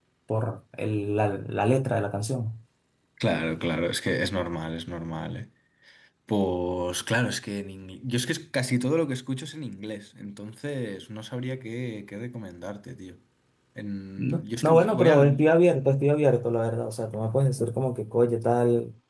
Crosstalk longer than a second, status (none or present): present